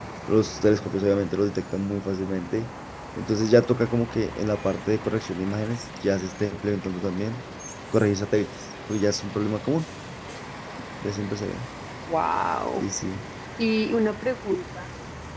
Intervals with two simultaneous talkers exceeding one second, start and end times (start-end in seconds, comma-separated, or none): none